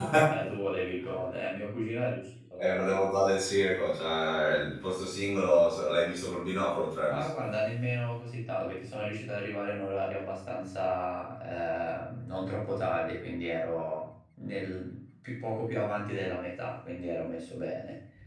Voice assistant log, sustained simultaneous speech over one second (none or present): none